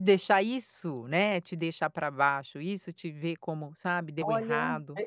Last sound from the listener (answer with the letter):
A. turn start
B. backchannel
A